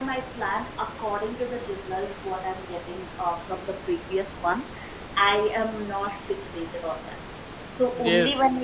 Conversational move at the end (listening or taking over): listening